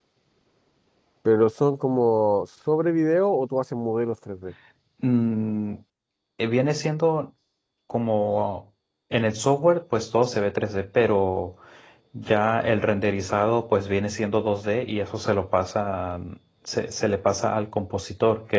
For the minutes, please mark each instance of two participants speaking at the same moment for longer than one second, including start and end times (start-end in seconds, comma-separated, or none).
none